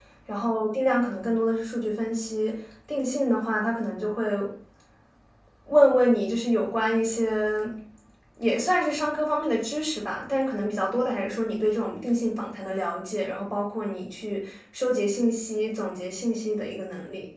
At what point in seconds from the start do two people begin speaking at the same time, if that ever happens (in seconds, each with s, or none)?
none